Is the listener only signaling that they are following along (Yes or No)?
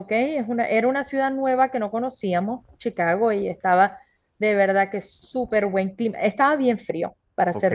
Yes